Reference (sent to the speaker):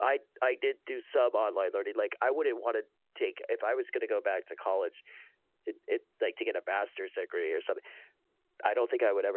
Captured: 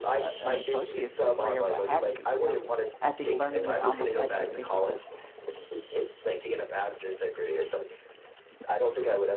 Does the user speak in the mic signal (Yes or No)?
Yes